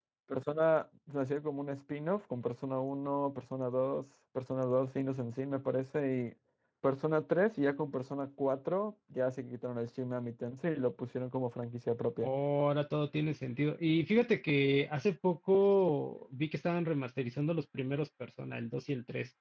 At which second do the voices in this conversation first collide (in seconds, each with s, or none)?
none